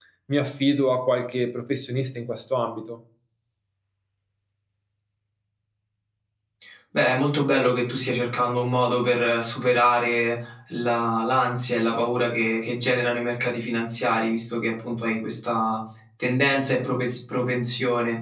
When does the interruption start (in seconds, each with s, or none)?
none